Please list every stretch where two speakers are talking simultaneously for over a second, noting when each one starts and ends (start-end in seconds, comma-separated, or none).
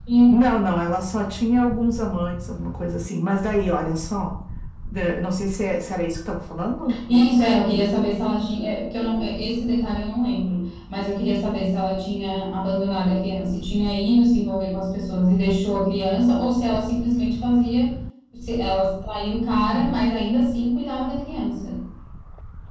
none